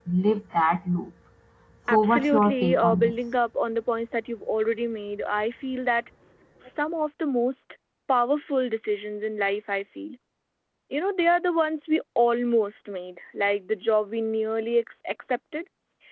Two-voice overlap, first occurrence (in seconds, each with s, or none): 1.9 s